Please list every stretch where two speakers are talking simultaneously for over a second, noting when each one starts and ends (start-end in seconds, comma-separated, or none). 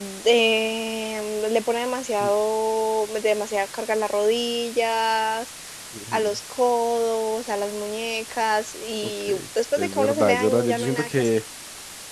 9.8-11.3